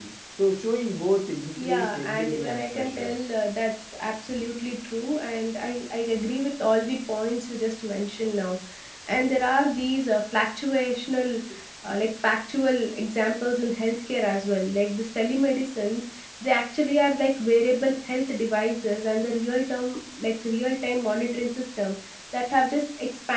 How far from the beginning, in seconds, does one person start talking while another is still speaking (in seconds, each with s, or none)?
1.6 s